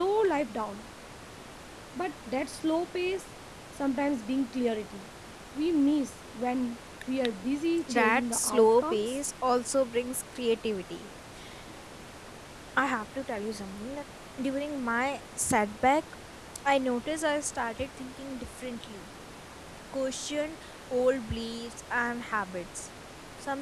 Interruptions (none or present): present